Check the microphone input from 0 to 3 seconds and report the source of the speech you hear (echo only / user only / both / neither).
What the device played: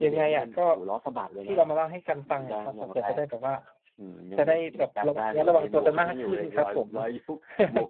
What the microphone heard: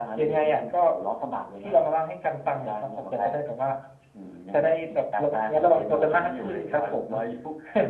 echo only